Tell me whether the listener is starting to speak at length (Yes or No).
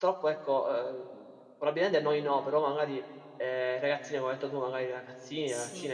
No